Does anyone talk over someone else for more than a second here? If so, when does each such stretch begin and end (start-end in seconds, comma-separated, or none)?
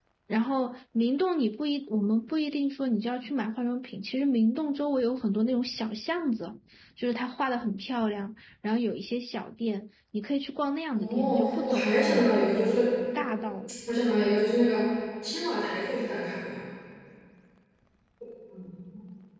10.9-12.9